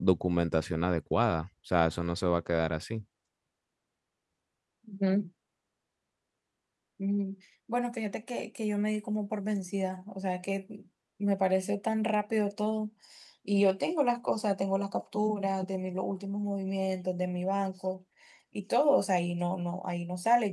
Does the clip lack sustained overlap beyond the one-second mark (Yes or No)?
Yes